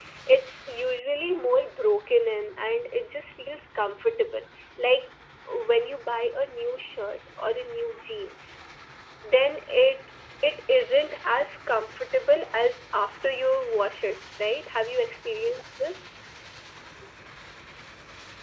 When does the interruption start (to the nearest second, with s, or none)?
none